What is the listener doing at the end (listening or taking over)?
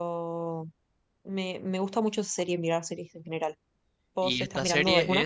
taking over